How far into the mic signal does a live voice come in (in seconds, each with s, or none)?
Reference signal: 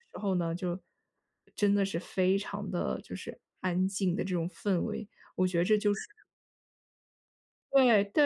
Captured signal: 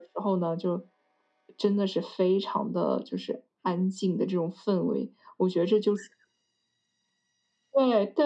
none